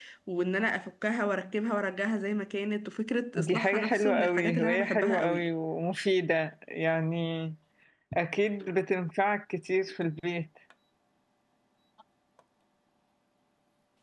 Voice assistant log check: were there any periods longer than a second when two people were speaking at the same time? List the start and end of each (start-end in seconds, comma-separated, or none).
3.4-5.5